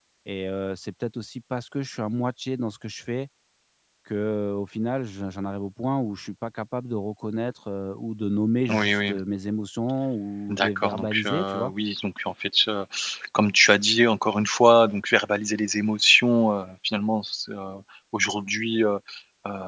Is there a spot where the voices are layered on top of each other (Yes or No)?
Yes